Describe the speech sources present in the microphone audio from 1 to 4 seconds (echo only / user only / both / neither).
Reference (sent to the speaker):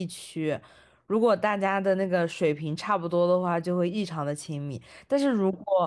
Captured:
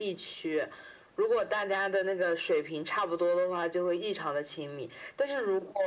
echo only